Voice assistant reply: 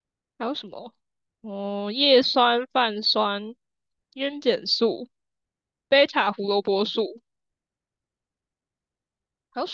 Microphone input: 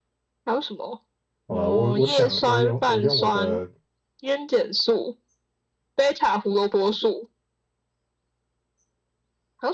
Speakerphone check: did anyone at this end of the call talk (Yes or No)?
Yes